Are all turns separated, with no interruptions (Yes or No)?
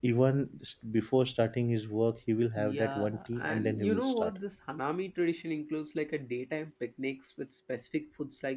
No